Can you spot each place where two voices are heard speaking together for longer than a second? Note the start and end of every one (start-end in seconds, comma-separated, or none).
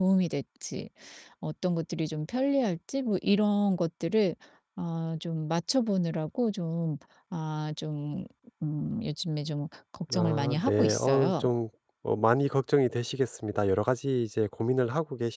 10.2-11.4